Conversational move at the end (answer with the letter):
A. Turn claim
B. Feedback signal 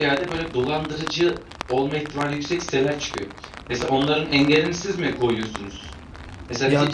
B